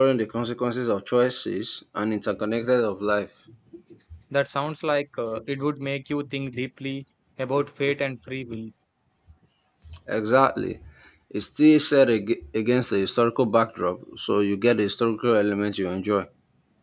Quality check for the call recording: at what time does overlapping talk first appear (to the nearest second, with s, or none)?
none